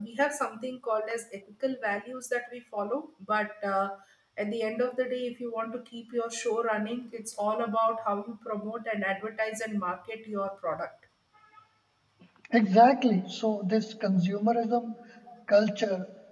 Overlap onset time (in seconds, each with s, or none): none